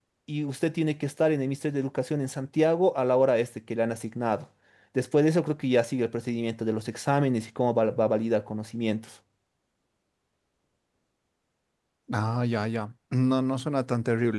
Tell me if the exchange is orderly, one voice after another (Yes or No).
Yes